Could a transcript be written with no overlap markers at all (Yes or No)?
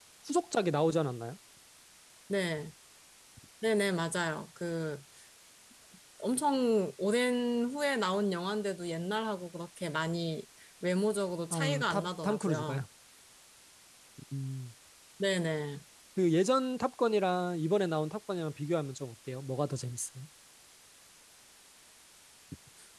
No